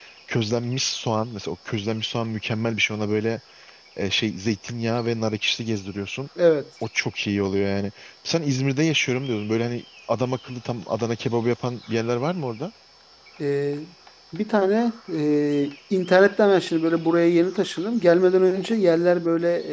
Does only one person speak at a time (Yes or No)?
Yes